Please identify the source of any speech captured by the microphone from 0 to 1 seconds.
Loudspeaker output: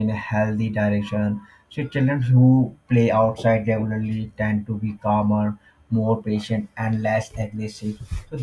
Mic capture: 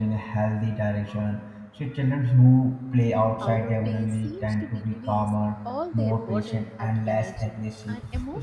echo only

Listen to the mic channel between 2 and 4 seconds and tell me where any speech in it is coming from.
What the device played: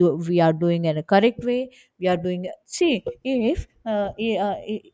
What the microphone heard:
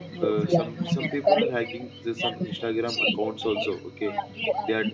both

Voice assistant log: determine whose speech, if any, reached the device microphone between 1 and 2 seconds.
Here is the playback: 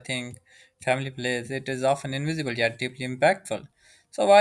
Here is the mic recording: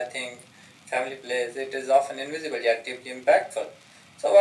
echo only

